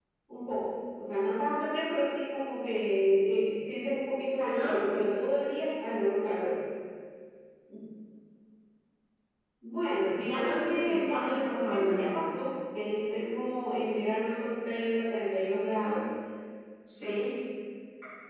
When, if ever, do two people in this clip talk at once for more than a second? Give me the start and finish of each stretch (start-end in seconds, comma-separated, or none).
10.3-12.1